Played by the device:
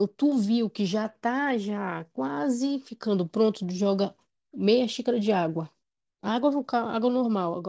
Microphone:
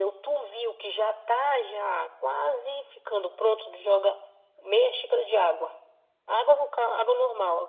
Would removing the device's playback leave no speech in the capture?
Yes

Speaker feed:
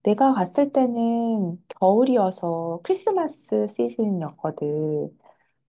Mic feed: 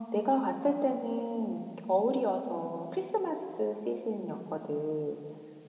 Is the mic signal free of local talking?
Yes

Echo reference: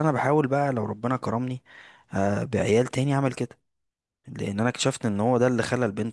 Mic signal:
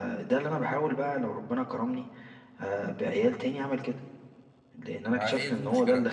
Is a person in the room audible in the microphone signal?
Yes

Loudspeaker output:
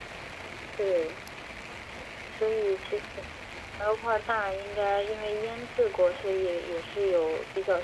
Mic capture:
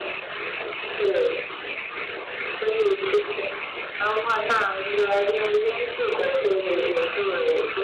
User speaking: Yes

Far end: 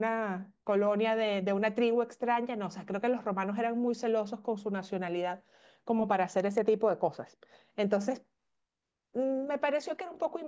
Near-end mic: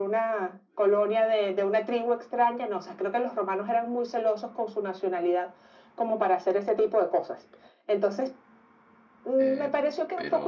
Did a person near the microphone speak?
Yes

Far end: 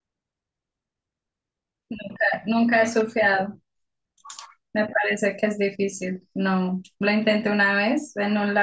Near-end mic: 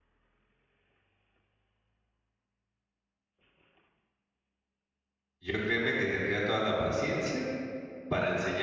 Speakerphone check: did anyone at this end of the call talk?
Yes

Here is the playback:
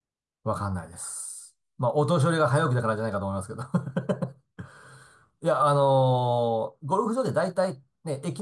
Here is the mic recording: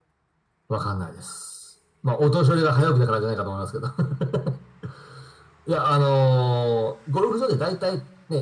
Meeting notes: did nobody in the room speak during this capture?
Yes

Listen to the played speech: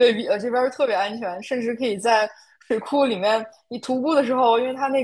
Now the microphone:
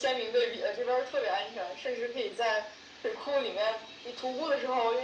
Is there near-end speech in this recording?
No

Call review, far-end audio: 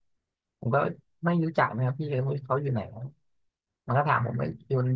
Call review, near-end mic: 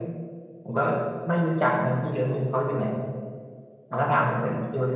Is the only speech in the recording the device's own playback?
Yes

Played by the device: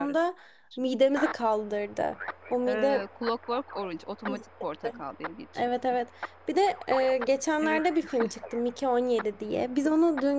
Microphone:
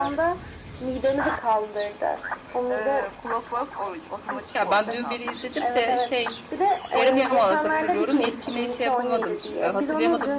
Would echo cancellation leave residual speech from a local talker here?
Yes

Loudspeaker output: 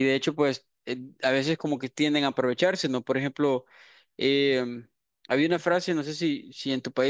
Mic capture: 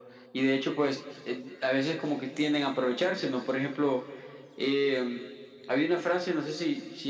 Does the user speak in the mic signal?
No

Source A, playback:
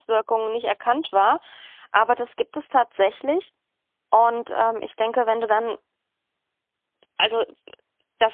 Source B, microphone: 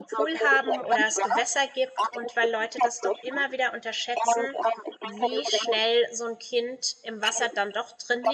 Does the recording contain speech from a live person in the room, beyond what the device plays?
Yes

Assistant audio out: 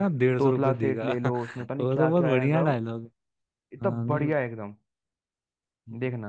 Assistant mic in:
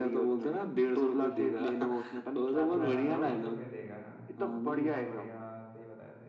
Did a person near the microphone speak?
Yes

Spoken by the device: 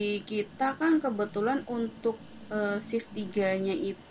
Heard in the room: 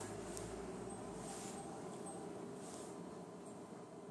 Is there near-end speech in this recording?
No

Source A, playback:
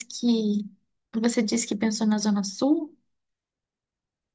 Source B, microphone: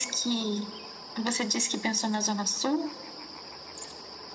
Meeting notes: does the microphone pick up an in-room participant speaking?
No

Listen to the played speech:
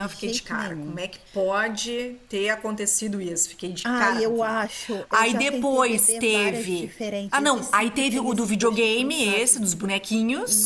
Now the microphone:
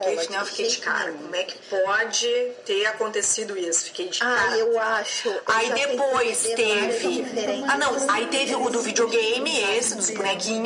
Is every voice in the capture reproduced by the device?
No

